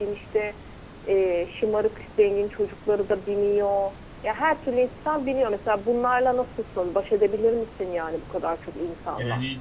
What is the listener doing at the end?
taking over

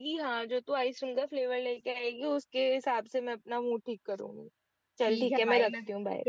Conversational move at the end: taking over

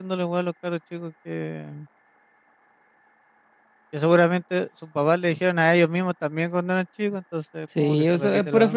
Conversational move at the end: taking over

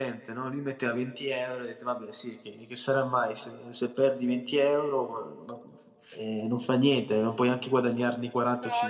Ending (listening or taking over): taking over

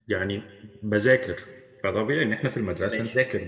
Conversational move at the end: listening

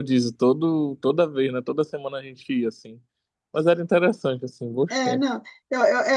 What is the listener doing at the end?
taking over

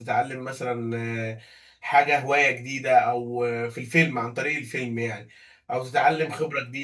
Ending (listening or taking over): listening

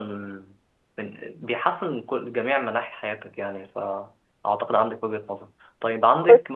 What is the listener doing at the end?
listening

